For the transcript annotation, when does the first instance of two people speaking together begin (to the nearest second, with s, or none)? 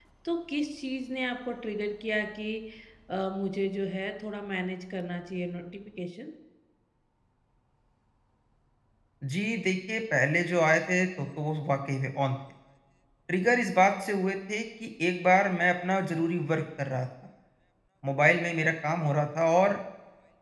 none